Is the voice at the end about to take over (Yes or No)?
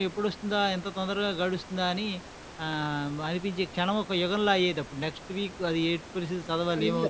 Yes